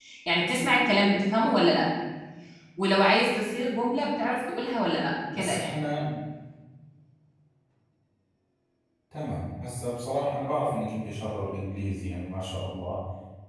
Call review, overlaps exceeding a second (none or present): none